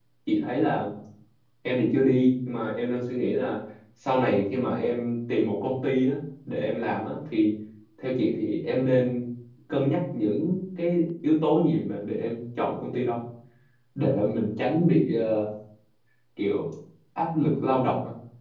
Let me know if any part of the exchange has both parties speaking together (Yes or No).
No